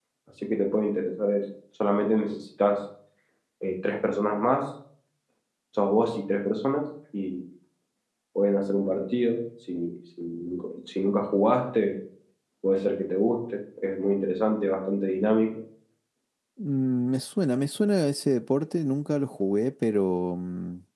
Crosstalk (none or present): none